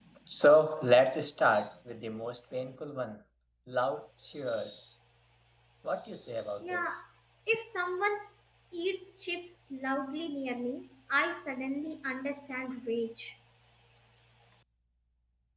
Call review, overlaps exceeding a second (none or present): none